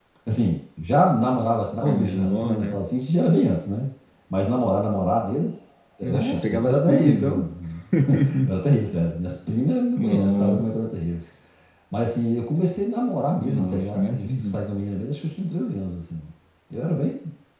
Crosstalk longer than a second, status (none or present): present